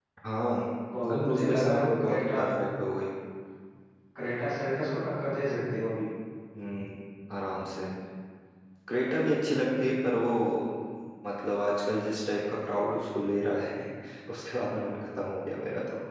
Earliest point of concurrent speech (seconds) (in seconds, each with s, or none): 1.1 s